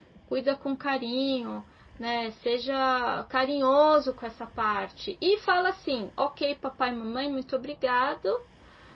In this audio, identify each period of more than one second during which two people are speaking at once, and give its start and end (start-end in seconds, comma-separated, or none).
none